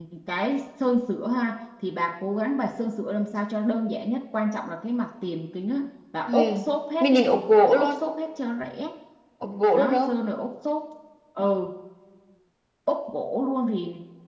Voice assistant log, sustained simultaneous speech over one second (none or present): none